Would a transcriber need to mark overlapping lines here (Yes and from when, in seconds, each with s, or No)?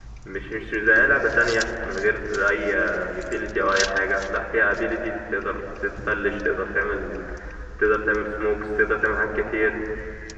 No